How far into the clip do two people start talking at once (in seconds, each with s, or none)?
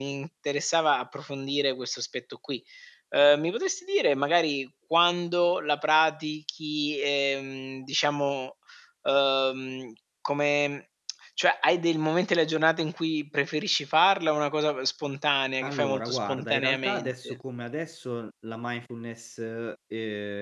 15.6 s